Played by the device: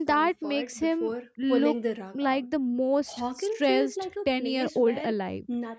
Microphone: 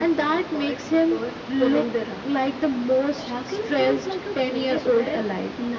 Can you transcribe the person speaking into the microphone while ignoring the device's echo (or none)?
none